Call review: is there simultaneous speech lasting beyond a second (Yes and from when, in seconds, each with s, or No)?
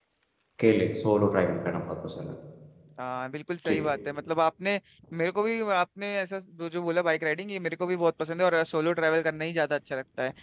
No